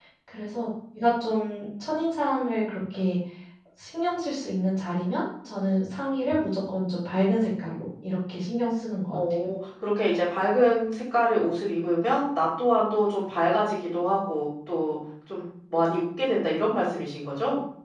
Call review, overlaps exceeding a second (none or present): none